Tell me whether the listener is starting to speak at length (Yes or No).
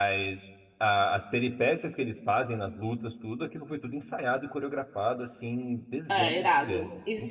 Yes